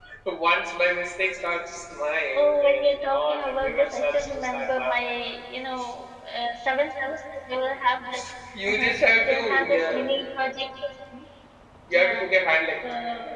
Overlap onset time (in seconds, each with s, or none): 2.3 s